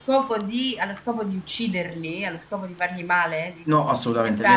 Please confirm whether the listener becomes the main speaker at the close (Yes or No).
Yes